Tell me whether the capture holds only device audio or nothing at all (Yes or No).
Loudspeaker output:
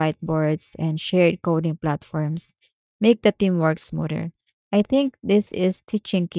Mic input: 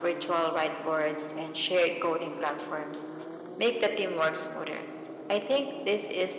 Yes